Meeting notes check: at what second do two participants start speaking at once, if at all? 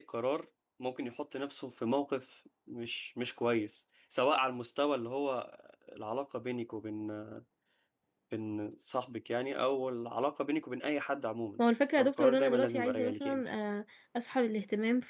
12 s

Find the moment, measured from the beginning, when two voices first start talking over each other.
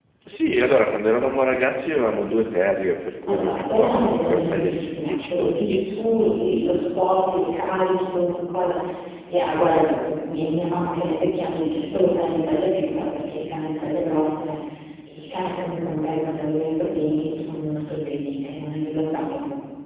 3 s

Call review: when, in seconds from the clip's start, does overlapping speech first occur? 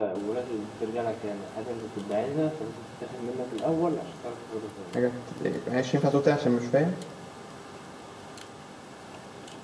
none

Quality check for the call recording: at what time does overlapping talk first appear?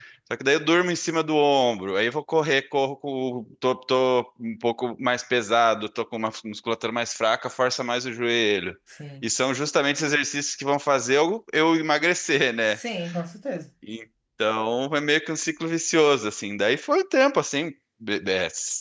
none

